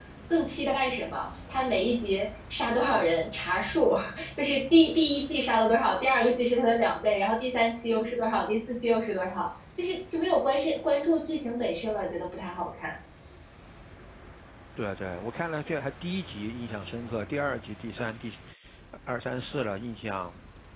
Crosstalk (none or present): none